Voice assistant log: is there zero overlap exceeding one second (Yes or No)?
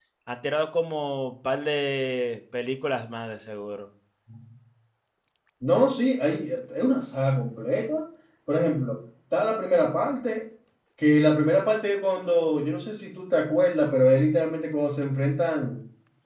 Yes